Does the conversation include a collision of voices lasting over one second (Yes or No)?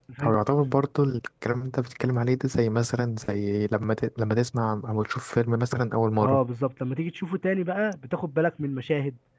No